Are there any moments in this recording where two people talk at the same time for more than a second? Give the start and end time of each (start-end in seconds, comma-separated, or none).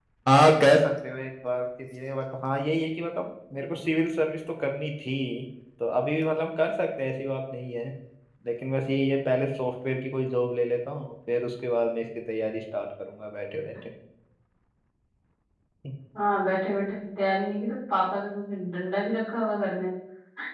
none